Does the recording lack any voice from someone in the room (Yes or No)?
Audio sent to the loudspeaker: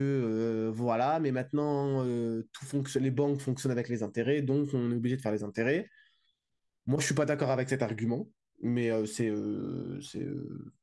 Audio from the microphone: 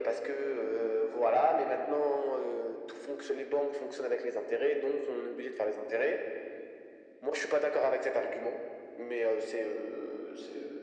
Yes